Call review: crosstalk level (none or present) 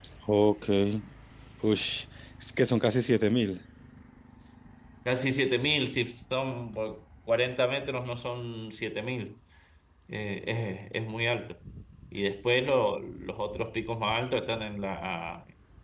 none